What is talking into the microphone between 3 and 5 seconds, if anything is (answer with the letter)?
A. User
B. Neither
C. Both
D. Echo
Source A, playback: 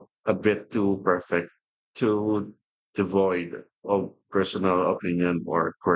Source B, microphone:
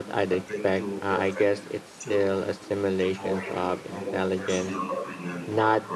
C